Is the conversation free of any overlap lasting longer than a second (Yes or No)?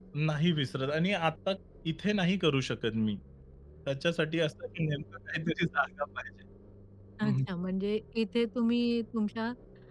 Yes